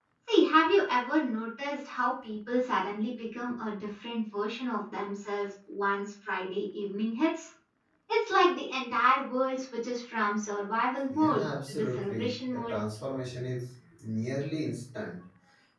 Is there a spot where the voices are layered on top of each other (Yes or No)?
Yes